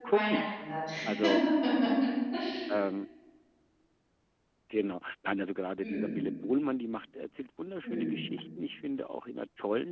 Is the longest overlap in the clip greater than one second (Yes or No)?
No